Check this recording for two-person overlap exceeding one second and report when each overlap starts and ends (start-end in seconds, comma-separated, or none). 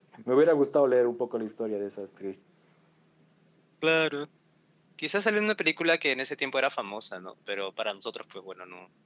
none